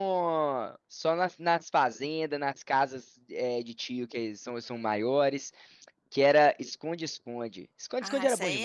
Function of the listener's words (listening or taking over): taking over